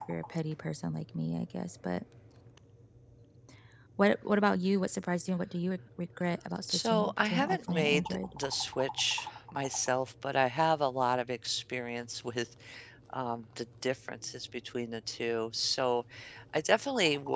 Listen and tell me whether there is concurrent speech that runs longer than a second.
Yes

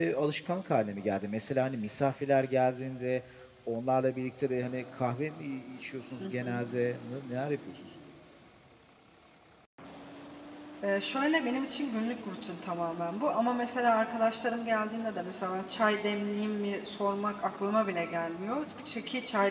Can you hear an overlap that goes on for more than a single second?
No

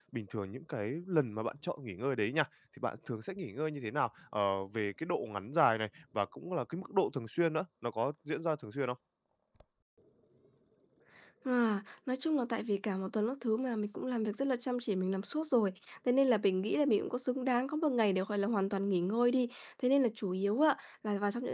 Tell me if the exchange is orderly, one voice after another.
Yes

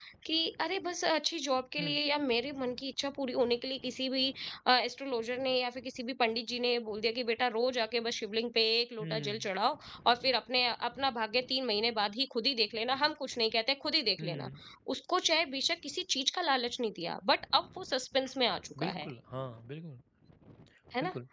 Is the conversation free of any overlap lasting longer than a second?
Yes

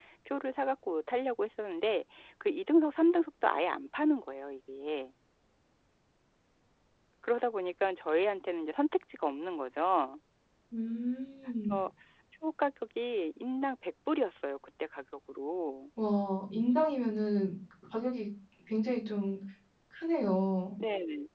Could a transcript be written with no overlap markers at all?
Yes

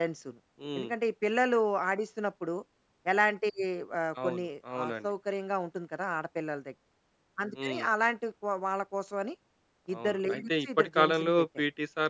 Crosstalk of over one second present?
Yes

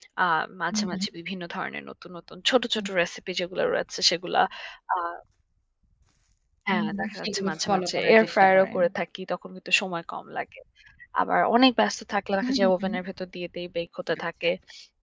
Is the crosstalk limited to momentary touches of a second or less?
No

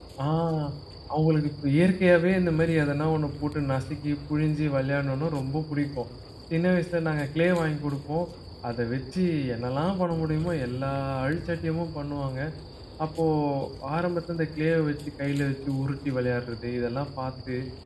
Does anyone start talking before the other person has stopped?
No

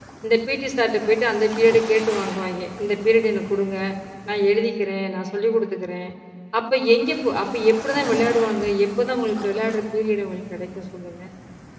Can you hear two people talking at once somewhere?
No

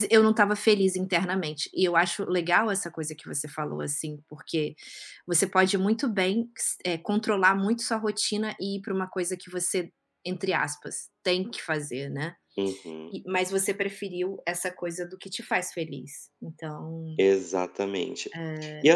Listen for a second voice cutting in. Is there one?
No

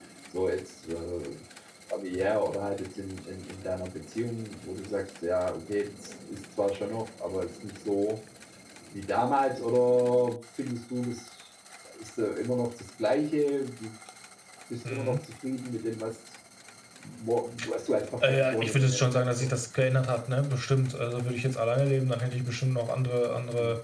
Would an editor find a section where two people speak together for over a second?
Yes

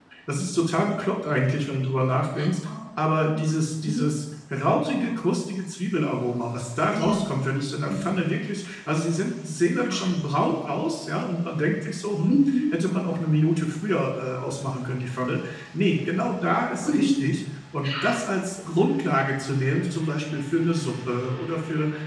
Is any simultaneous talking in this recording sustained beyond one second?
No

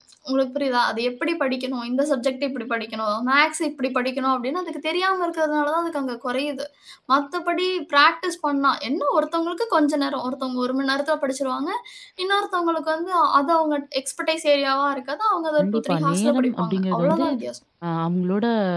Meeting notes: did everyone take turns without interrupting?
No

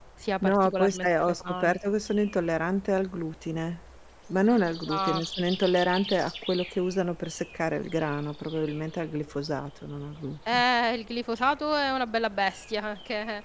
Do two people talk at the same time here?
Yes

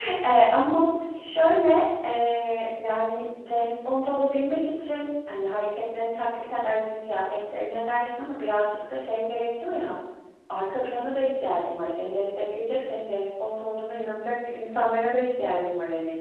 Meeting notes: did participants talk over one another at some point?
No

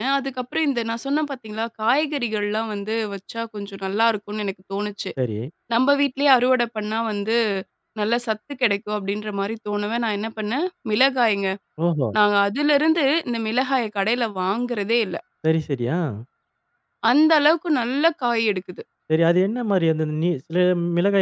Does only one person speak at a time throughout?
Yes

